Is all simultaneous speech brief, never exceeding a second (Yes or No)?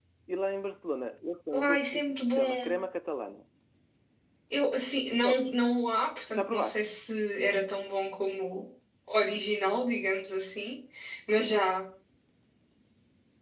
No